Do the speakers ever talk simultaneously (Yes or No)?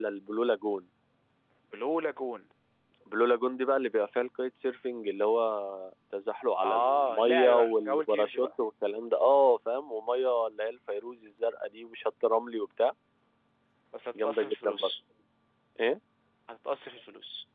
Yes